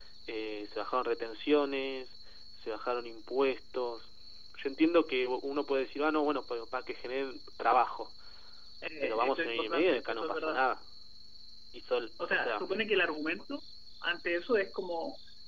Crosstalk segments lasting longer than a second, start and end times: 9.0-10.6

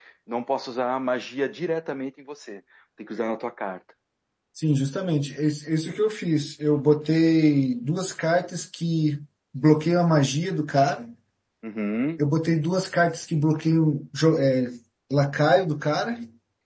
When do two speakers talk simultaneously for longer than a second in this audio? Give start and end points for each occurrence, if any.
none

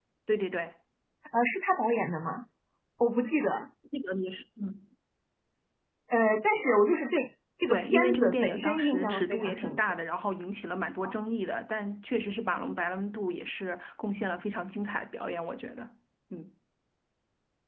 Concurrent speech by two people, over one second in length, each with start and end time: 7.7-9.8

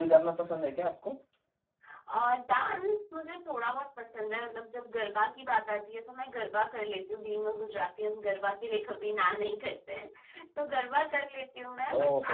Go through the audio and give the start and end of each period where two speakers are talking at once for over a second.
none

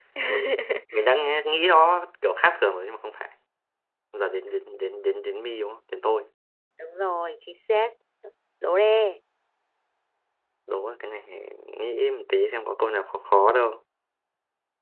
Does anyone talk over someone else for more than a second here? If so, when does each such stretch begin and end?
none

